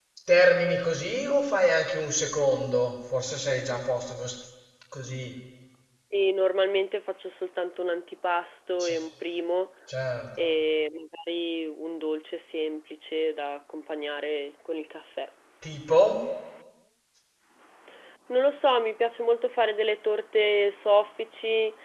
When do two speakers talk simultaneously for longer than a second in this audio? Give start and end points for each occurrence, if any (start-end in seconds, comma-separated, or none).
none